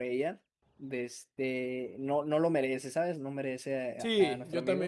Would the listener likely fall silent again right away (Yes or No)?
No